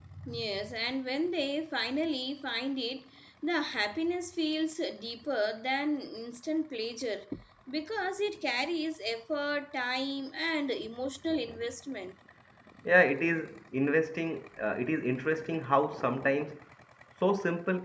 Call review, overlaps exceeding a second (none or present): none